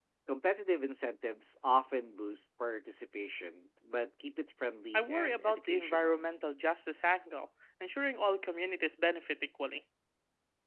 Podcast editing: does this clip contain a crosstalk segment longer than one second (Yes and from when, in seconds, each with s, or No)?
Yes, from 4.9 s